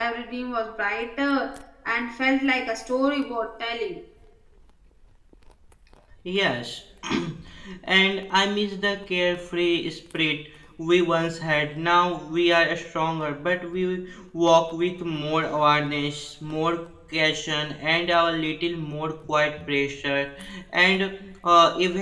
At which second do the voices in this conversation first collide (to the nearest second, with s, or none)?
none